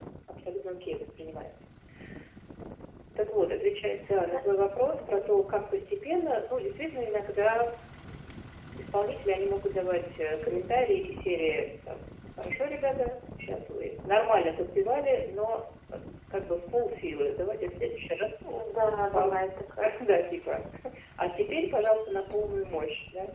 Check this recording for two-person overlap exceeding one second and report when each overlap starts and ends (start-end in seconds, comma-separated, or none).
none